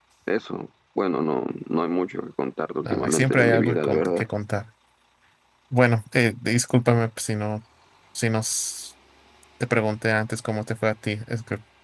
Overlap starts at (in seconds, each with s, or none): 2.8 s